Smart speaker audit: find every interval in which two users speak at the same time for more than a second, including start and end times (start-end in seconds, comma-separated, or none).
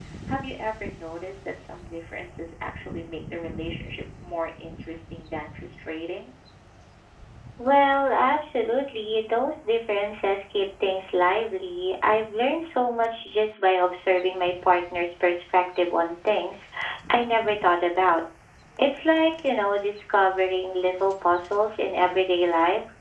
none